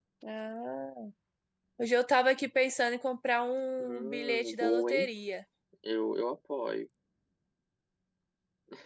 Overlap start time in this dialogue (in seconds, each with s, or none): 3.8 s